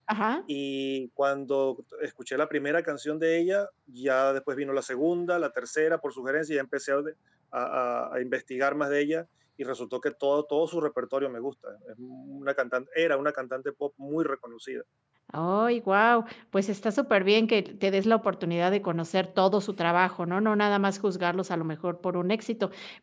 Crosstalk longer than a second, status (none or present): none